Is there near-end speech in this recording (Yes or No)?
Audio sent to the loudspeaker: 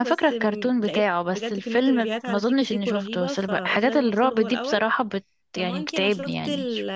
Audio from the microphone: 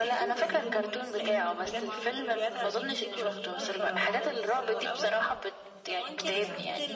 Yes